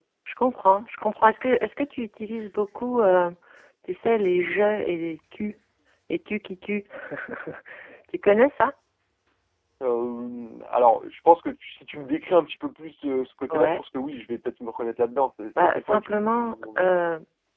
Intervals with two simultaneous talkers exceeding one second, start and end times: 15.6-16.9

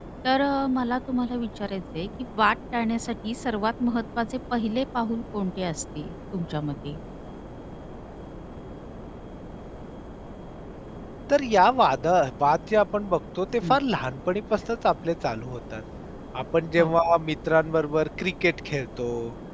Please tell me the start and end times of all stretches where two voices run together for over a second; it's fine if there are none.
none

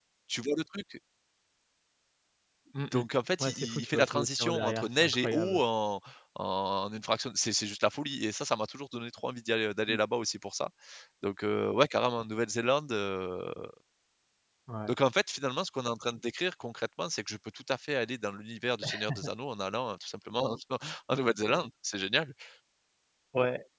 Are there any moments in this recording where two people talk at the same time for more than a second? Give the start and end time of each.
3.4-5.6

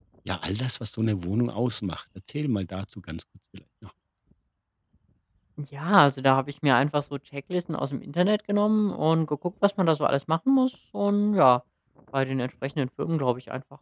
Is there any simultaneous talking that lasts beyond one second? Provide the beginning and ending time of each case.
none

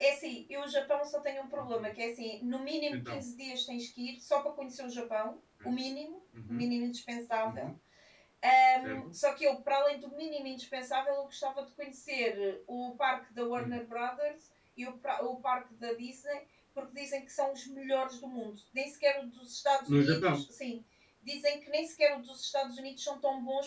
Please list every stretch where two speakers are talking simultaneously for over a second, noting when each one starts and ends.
none

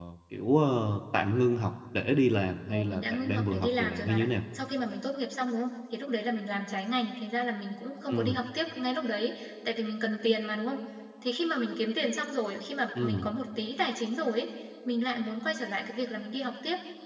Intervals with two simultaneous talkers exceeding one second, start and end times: 2.7-4.3

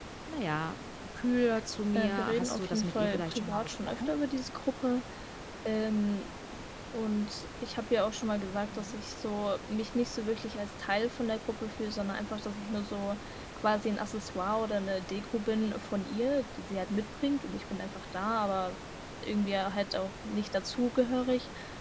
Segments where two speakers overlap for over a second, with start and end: 1.9-4.1

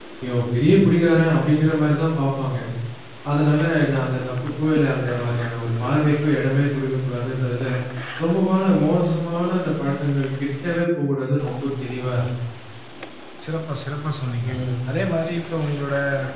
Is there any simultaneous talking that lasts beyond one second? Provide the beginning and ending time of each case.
none

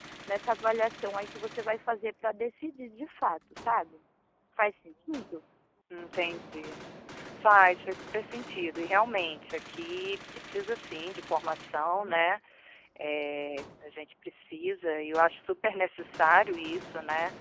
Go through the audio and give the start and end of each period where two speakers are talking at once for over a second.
none

